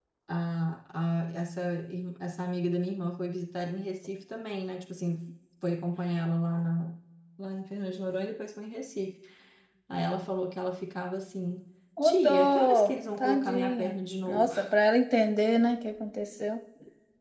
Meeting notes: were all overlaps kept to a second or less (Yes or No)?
No